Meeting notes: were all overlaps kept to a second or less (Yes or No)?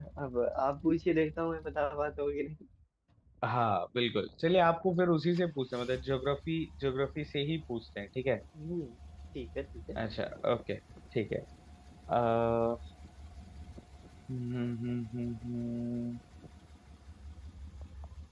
Yes